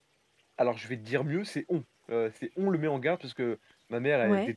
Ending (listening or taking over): listening